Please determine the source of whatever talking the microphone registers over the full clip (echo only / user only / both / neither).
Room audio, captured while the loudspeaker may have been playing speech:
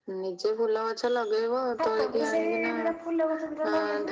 both